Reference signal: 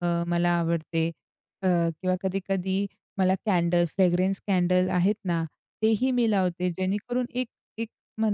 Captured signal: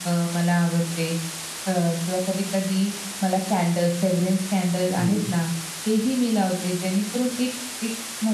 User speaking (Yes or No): Yes